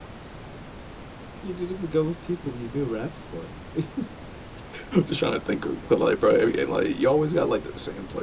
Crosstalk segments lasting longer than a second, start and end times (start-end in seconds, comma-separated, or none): none